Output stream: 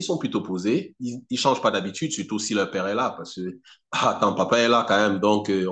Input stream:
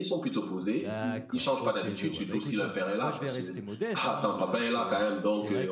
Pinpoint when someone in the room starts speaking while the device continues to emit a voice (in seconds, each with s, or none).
0.6 s